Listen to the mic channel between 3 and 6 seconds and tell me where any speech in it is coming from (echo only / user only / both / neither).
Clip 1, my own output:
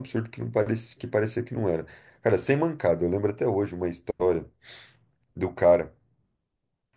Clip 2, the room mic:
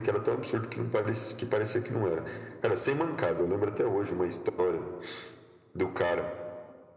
echo only